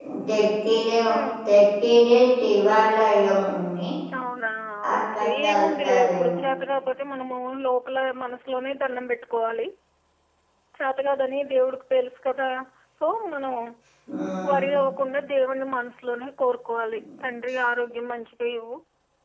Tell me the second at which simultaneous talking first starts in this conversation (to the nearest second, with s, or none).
5 s